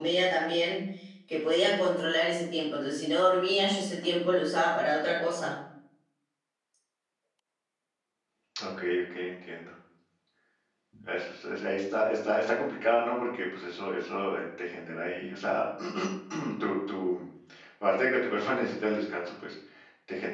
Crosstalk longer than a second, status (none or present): none